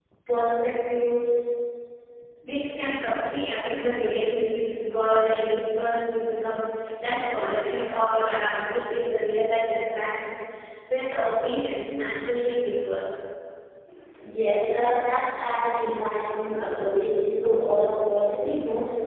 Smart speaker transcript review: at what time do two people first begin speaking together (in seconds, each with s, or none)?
none